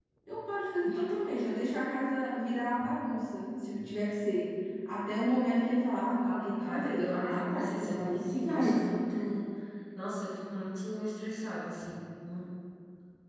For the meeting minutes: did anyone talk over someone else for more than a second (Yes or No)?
Yes